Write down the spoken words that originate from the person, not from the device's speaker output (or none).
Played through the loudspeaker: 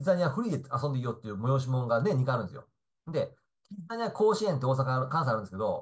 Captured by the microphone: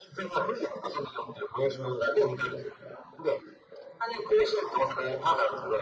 none